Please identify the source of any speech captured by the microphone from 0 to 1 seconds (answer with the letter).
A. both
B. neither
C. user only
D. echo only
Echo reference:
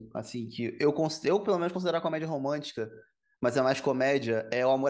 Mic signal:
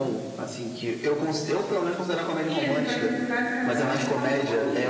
D